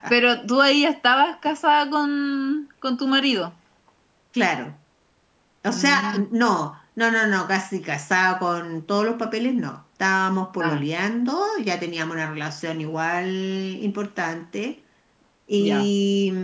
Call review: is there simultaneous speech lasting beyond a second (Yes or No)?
No